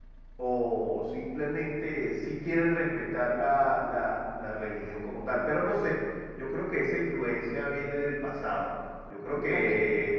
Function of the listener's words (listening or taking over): listening